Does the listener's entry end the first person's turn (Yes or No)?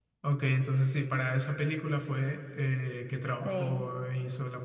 No